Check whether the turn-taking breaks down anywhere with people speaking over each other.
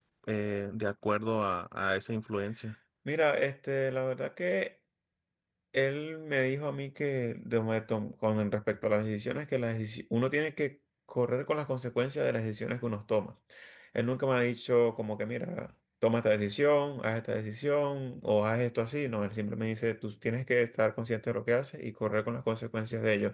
No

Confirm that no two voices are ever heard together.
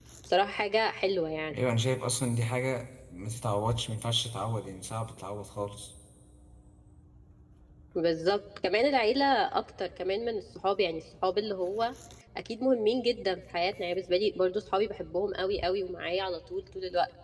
Yes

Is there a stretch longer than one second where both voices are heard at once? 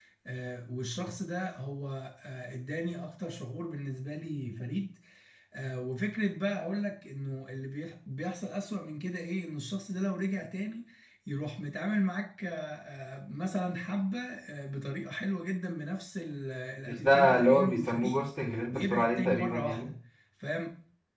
Yes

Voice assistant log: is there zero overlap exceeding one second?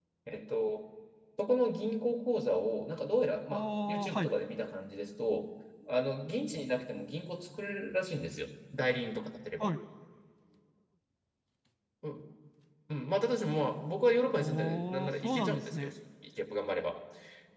No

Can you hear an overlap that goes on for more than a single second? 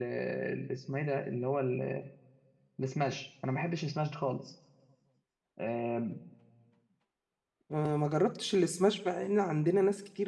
No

